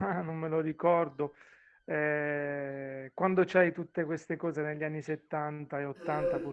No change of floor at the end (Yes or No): Yes